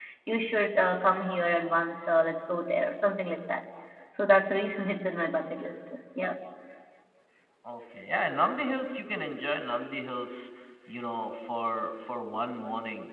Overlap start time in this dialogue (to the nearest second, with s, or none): none